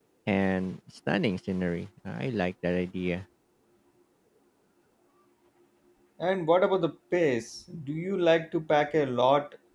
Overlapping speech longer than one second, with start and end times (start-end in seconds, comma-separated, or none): none